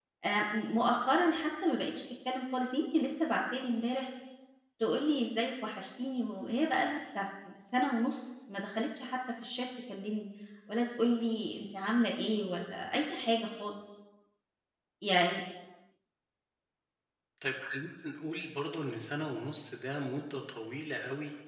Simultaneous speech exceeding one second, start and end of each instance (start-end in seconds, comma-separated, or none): none